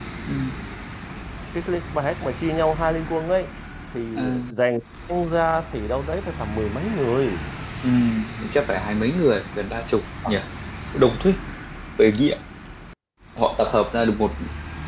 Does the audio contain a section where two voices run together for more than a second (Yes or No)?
No